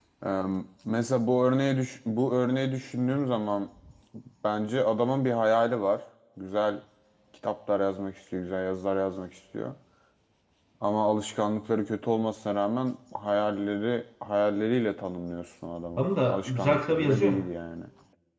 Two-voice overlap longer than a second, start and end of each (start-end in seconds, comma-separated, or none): 16.0-17.4